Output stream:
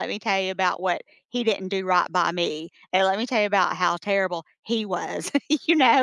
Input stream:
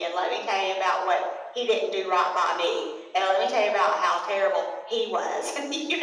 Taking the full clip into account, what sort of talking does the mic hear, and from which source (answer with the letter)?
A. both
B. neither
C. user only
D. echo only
D